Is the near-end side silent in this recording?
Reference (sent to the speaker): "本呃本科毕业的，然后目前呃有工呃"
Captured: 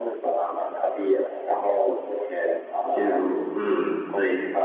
No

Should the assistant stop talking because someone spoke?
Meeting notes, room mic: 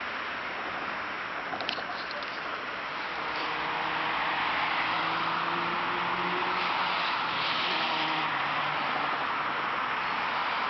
No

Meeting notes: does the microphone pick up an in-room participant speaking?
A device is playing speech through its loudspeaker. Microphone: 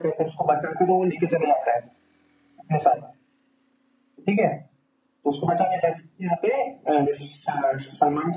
No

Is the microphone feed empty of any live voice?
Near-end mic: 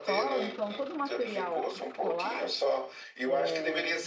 No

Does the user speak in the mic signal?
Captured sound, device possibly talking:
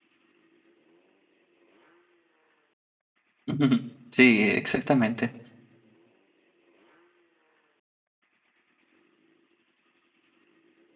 Yes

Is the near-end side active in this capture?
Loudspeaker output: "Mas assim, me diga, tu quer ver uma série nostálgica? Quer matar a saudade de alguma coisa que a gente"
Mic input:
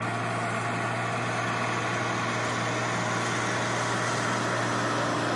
No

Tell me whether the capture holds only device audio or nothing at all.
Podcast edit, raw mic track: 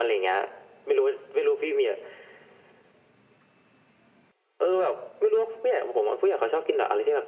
Yes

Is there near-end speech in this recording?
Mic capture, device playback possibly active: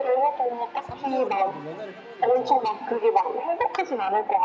Yes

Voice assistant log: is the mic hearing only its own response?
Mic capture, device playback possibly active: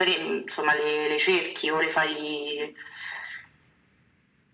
Yes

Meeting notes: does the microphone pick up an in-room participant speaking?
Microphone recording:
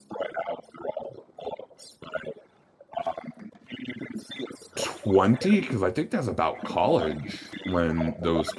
Yes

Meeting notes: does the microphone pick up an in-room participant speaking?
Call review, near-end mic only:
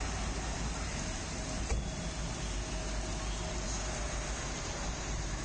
No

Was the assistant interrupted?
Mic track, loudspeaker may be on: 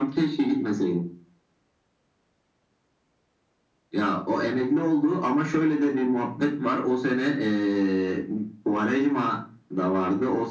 No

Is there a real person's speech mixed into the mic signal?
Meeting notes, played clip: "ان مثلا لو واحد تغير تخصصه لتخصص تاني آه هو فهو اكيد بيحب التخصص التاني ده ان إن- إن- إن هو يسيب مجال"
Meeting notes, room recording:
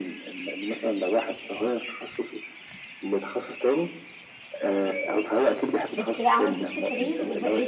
Yes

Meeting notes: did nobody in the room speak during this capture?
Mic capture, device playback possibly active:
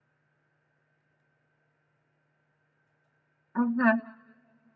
No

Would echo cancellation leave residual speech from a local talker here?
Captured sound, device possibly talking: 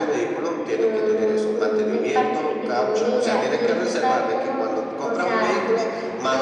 No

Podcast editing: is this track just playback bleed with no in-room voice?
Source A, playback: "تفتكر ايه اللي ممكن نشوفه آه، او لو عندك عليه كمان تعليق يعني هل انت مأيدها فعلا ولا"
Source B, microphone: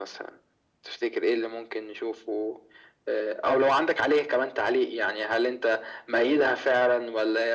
Yes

